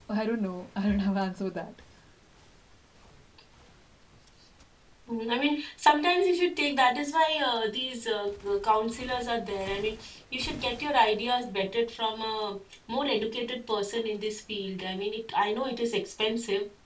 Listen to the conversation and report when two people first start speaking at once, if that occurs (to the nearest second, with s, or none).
none